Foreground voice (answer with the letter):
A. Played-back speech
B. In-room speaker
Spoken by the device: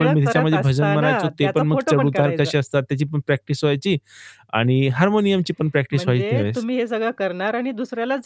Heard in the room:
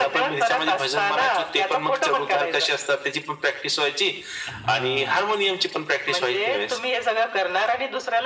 A